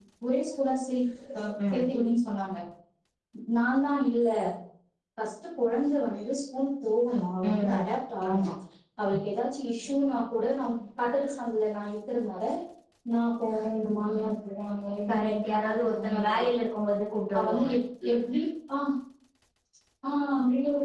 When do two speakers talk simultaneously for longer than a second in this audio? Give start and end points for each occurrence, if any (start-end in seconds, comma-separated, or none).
15.1-16.4